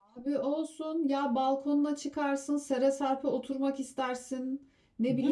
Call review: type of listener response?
listening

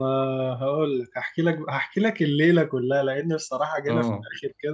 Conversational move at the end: listening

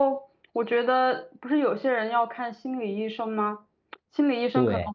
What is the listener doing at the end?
listening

